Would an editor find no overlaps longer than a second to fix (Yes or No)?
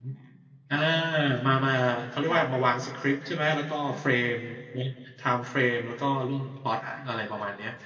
Yes